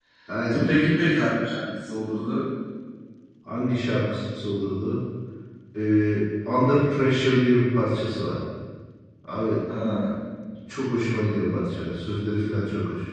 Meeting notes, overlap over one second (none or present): none